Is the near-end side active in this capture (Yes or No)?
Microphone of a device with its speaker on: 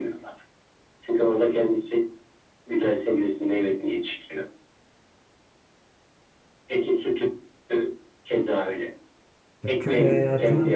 Yes